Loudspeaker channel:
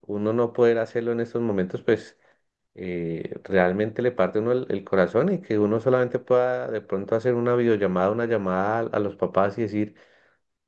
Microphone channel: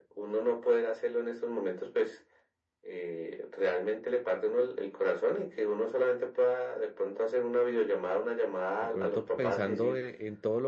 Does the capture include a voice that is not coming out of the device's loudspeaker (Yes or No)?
Yes